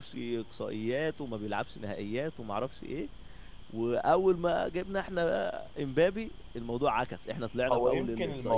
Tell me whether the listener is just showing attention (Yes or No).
No